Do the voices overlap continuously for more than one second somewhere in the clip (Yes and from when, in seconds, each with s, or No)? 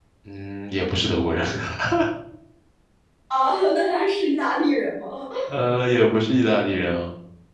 No